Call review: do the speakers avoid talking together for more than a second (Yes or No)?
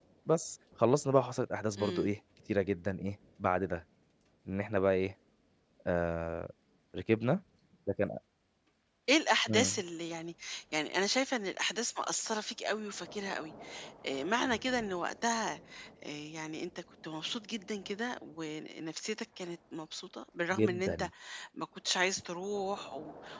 Yes